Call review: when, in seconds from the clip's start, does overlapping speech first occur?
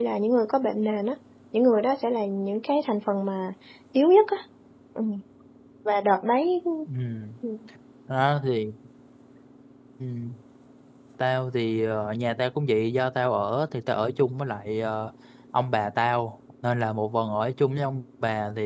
none

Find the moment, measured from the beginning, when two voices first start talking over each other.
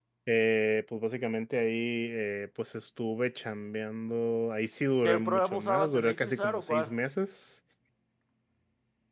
5.0 s

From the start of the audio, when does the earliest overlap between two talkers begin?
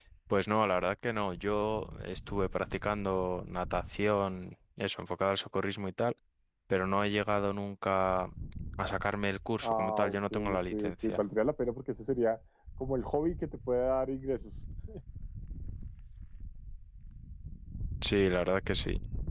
9.6 s

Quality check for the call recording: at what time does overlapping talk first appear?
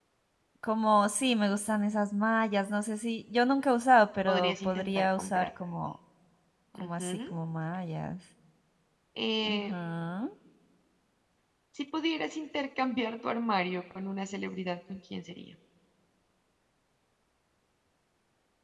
4.3 s

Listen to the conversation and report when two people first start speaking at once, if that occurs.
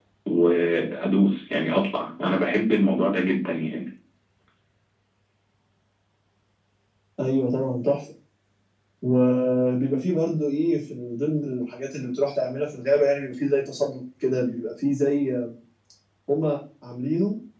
none

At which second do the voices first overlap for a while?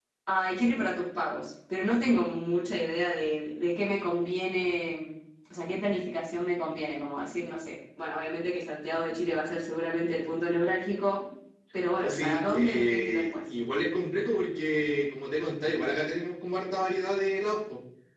12.0 s

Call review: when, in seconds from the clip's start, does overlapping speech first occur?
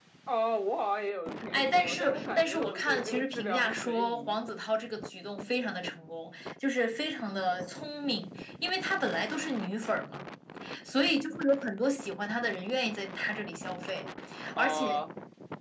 1.5 s

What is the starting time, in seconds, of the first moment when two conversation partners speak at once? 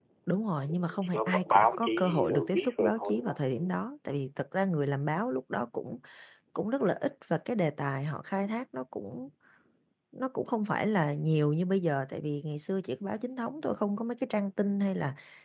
0.6 s

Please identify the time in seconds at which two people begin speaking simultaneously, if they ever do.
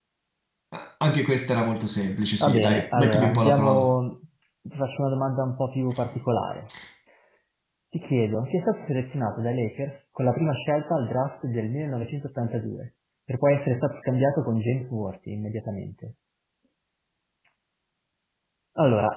2.4 s

